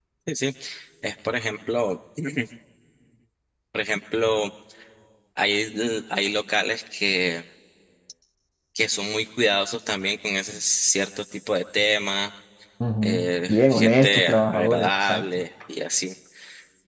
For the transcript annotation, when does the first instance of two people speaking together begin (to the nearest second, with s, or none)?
13 s